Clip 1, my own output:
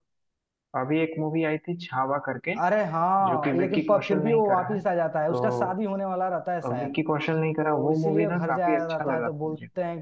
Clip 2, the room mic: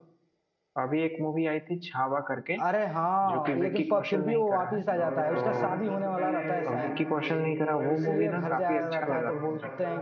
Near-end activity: present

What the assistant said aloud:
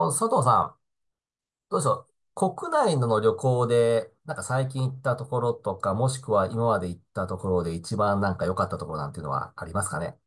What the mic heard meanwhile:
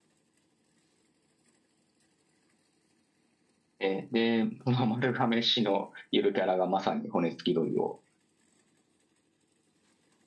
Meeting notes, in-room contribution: present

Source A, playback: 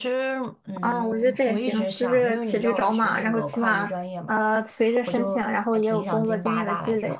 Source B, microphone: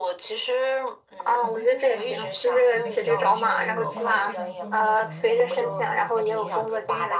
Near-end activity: present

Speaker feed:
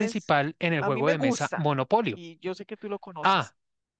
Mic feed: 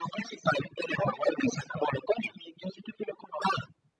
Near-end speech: none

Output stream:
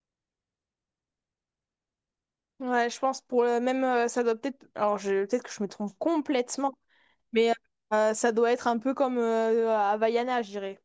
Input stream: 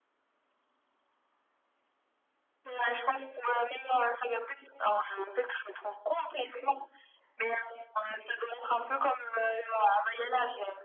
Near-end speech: none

